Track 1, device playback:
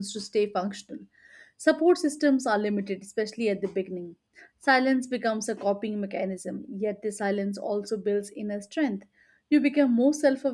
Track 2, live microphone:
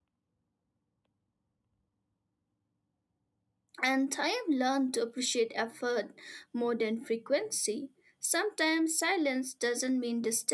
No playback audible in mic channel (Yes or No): Yes